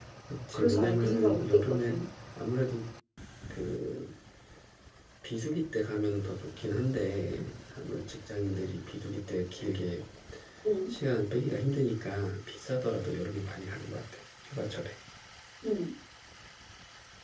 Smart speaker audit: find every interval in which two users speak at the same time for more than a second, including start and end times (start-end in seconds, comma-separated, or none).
0.5-2.0